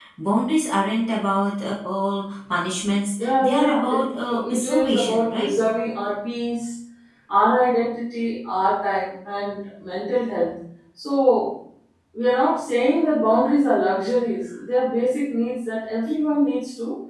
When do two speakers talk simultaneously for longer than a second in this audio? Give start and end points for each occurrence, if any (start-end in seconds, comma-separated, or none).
3.2-5.5